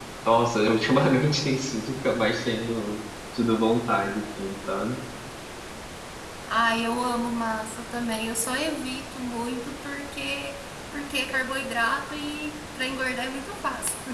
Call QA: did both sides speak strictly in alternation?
Yes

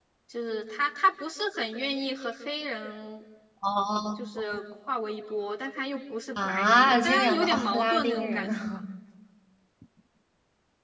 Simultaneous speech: Yes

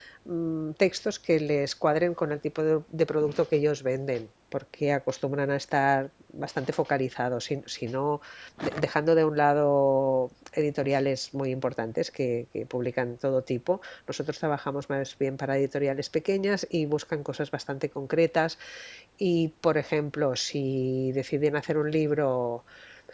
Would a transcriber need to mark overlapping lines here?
No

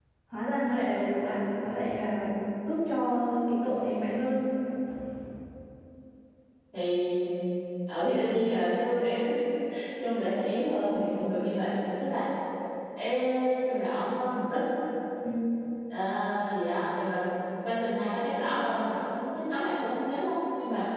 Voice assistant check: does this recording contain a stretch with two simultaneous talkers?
No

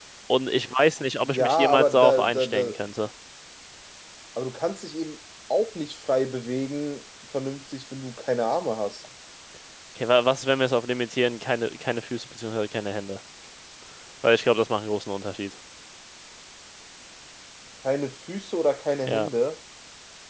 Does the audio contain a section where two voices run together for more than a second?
Yes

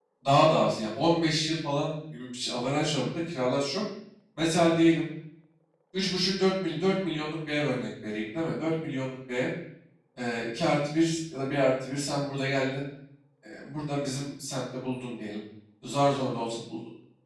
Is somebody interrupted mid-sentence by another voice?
No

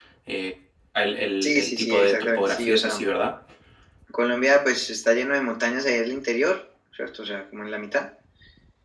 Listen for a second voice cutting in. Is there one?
Yes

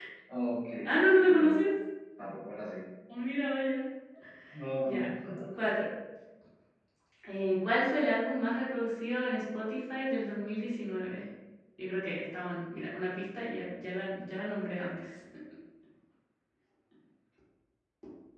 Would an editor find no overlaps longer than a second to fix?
Yes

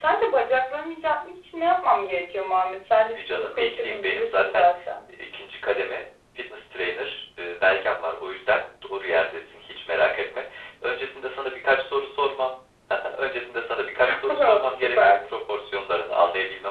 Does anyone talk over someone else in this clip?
Yes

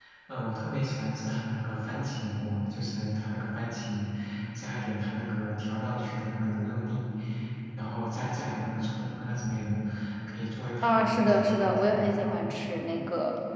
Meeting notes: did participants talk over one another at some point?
Yes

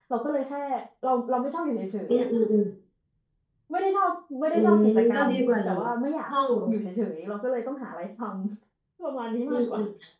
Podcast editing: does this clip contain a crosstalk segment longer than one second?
Yes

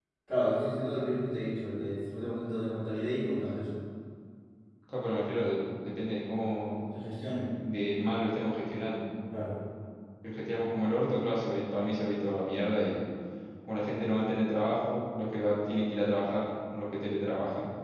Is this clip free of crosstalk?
Yes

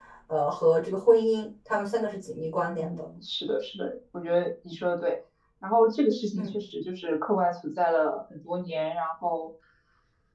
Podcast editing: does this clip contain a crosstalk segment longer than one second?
No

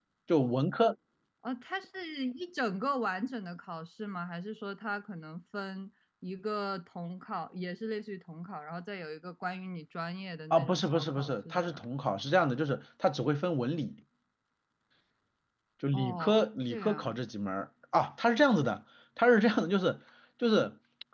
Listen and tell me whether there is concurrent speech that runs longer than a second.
Yes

